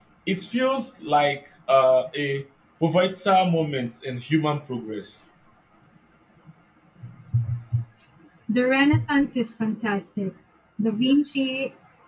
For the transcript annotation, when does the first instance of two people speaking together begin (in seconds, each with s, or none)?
none